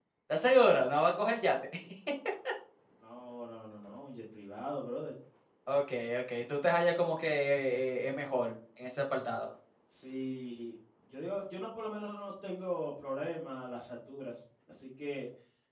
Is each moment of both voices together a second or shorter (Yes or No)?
Yes